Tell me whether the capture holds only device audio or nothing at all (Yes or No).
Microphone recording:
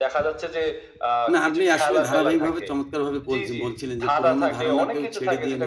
No